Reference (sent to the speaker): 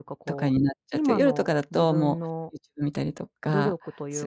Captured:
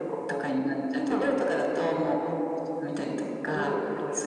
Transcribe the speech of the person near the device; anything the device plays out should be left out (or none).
none